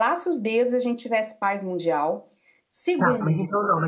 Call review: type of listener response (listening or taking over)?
taking over